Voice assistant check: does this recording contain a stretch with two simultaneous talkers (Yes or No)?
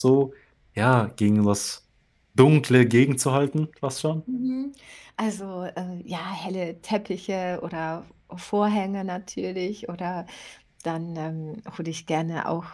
No